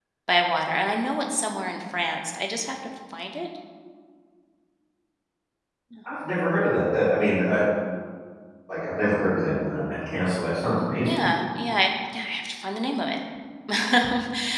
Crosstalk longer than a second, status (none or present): none